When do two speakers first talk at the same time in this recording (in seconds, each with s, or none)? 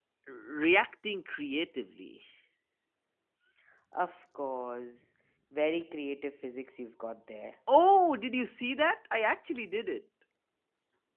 none